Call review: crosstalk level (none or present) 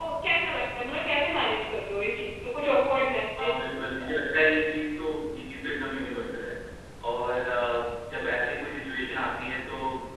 none